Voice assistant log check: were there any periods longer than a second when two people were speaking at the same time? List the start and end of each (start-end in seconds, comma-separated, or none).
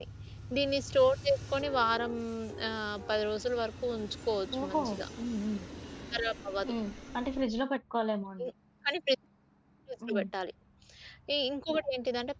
none